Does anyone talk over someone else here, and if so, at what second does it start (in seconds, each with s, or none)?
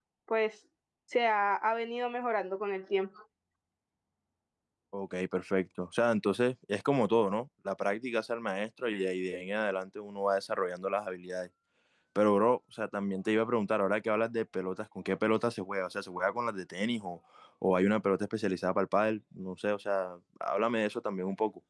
none